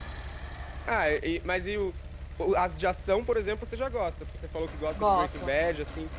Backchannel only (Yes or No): Yes